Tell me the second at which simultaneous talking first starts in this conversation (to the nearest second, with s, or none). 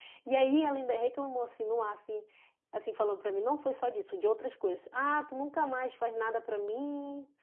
none